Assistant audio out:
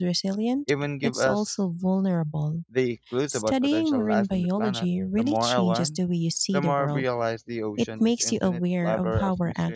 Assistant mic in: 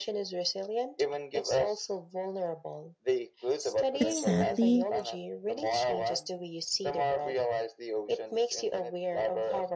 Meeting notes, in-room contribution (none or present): present